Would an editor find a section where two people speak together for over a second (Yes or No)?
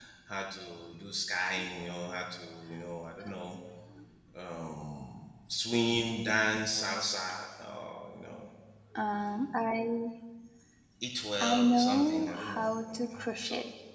Yes